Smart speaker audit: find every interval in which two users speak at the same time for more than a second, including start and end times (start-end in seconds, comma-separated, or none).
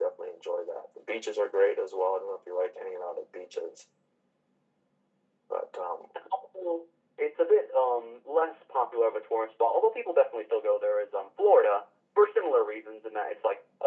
none